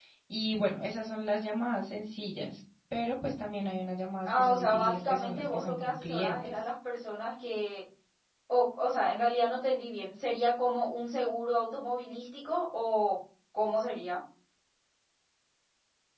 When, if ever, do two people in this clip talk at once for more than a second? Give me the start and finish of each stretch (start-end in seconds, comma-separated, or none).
4.2-6.6